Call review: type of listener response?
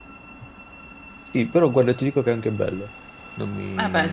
taking over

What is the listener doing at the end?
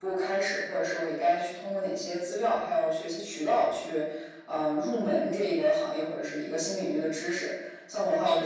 listening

